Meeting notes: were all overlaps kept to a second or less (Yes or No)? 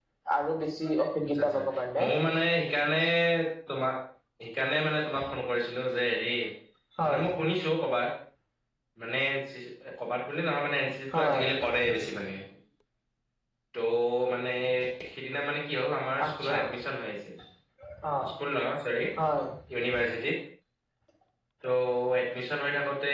Yes